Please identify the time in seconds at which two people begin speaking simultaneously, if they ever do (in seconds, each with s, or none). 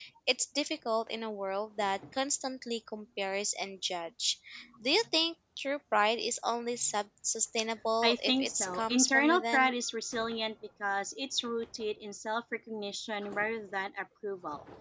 8.0 s